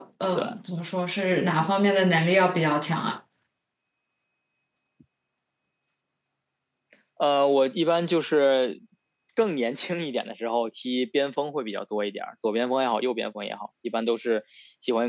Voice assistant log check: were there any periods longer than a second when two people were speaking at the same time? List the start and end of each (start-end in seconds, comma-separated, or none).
none